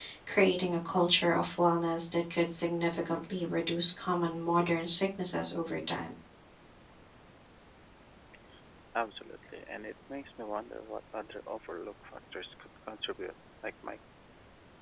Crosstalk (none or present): none